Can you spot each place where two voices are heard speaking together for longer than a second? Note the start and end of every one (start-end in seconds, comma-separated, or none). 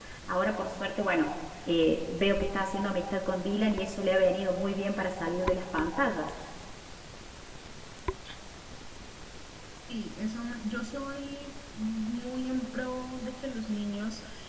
none